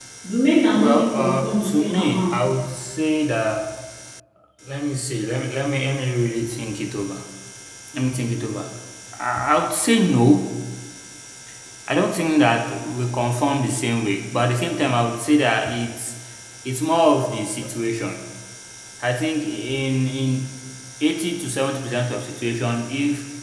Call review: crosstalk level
present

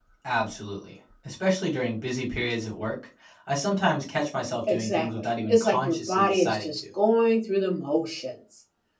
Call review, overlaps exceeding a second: present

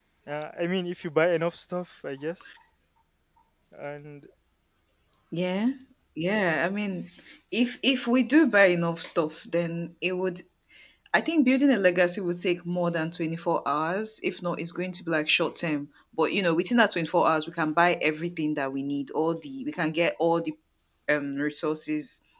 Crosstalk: none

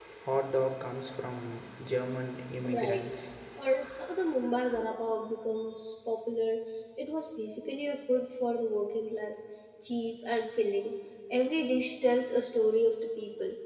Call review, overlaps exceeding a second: none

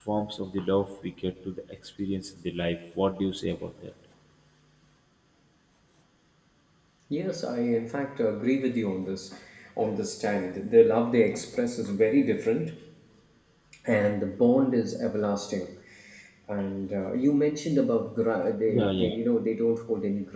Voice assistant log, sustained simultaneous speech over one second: none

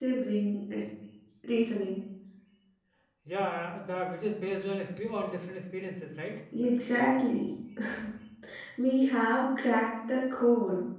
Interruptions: none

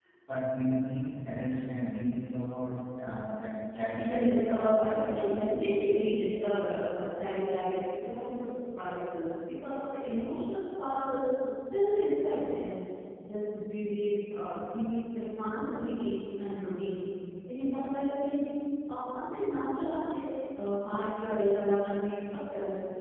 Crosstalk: present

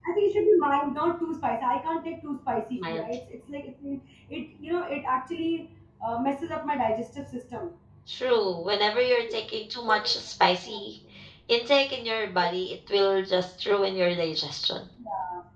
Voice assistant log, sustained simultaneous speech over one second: none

